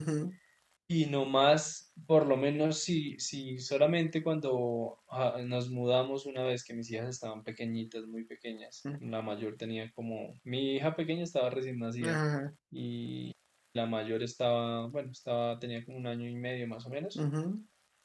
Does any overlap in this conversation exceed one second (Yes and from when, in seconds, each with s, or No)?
No